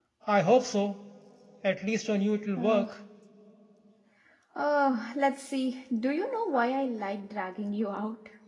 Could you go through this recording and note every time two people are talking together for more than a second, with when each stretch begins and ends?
none

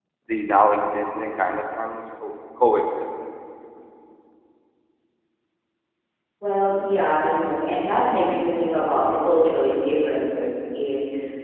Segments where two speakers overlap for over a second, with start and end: none

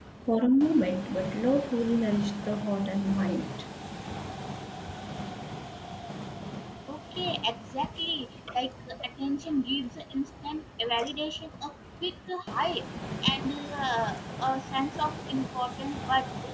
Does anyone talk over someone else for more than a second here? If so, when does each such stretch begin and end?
none

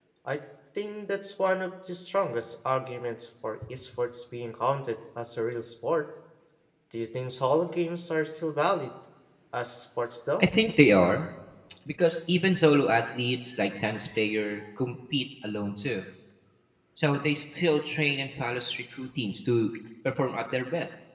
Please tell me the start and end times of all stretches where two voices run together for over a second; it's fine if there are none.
none

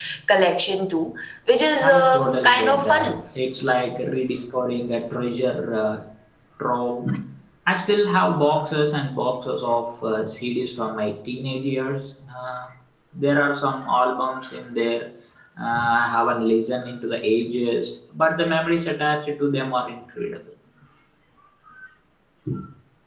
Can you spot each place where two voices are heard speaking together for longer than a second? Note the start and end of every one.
1.8-3.1

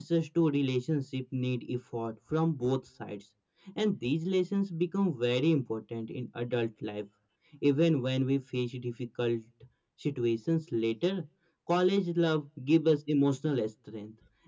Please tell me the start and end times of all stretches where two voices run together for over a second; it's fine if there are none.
none

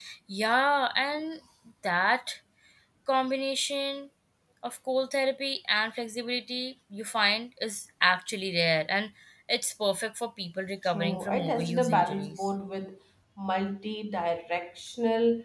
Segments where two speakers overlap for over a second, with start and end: 10.8-12.5

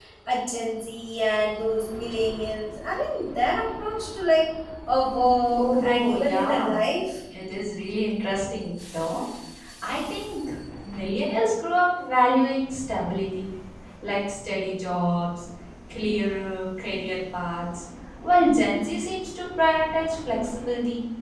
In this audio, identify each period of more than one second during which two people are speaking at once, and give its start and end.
5.5-6.8

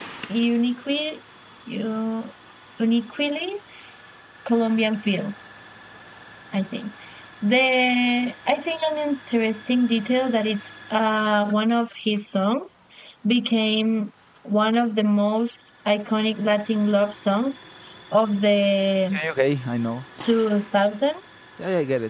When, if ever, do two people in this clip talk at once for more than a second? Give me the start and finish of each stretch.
none

